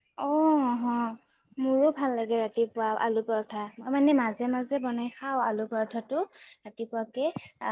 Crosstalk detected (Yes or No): No